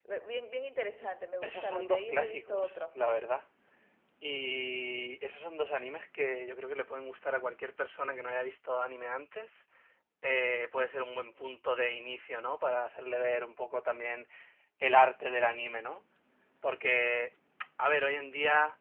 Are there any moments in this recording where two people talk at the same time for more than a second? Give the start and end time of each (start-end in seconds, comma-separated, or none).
1.4-3.3